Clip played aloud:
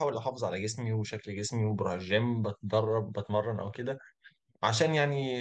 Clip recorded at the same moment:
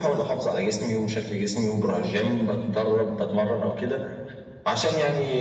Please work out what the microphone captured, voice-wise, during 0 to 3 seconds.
echo only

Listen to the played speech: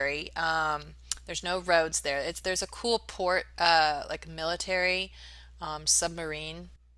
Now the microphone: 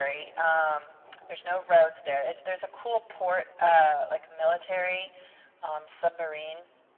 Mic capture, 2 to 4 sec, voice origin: echo only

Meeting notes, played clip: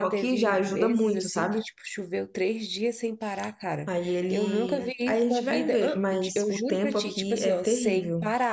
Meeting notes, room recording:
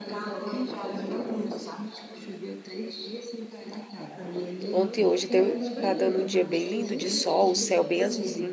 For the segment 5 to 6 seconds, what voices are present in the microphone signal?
both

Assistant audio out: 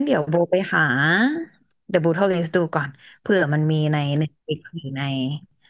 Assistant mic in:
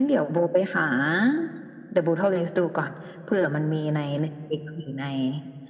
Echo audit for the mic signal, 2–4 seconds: echo only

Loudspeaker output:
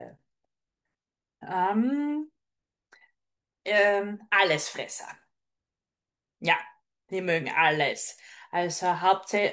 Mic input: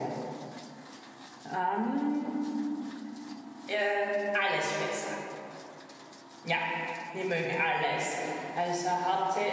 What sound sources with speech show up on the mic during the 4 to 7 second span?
echo only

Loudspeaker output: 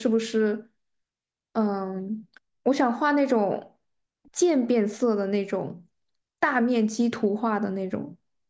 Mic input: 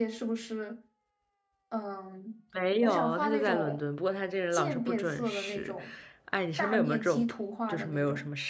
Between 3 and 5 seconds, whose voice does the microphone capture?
both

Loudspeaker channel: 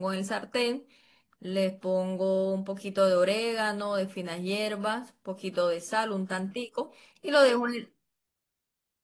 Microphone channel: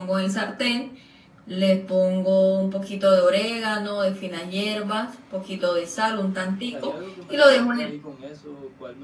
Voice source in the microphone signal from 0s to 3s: echo only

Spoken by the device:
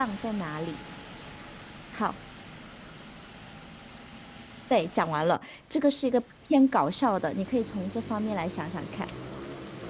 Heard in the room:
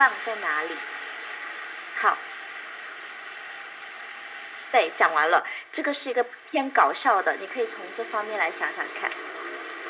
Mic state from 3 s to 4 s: neither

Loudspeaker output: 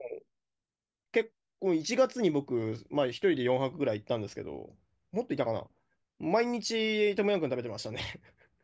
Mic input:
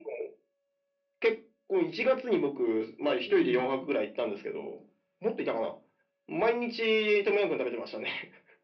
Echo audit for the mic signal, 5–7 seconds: echo only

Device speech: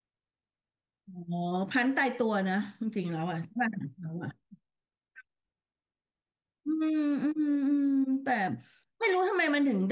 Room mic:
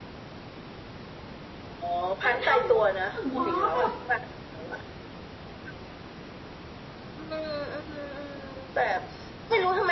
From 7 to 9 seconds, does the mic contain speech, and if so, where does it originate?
echo only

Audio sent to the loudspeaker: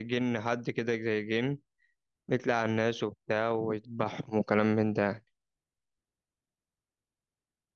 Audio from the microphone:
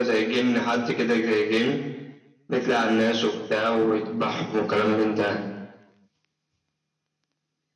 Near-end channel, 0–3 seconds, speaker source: echo only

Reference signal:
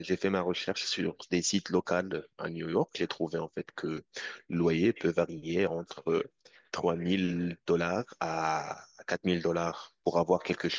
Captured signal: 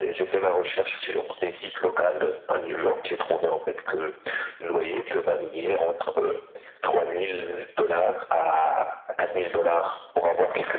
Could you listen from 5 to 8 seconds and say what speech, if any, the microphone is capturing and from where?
echo only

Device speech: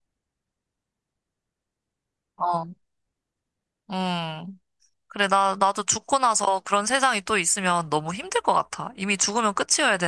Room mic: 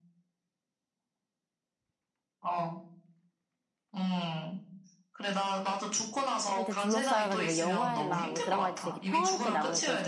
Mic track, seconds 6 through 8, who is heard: both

